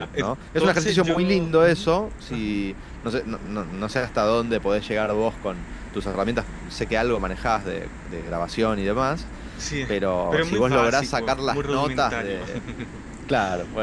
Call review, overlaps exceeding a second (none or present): present